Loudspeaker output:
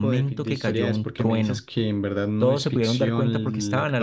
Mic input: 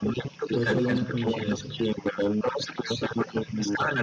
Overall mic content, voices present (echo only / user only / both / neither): both